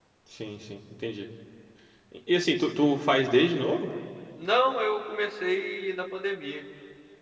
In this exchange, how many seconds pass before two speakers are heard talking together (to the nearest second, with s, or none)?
none